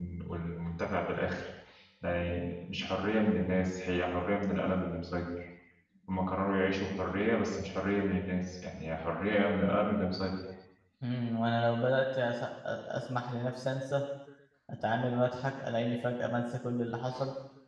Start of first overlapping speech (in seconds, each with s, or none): none